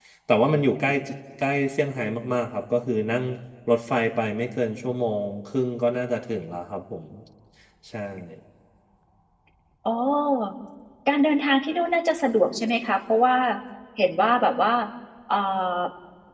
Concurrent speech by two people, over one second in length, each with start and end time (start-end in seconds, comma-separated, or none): none